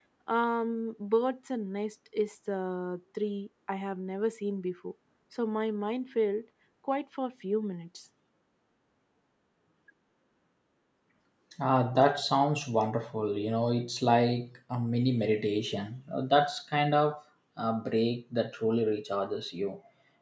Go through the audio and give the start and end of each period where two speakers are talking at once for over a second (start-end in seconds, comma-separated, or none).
none